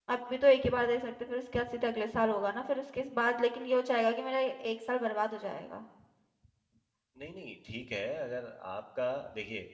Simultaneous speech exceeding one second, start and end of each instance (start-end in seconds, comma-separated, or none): none